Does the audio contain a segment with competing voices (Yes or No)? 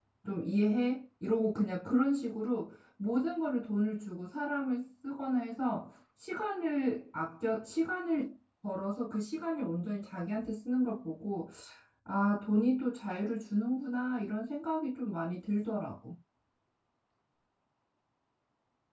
No